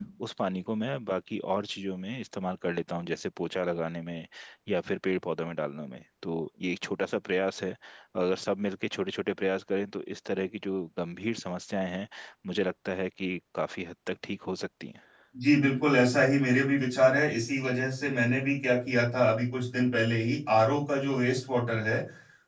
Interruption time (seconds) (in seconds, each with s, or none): none